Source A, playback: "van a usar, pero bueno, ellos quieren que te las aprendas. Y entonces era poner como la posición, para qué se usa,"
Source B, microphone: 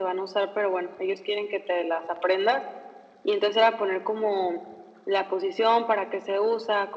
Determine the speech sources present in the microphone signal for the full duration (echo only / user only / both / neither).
echo only